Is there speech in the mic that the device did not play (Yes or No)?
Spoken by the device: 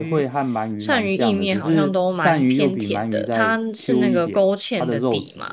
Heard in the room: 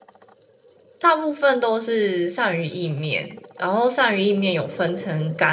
Yes